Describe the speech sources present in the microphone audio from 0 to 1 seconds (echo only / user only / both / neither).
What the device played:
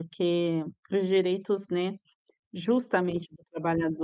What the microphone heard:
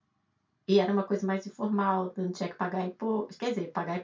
user only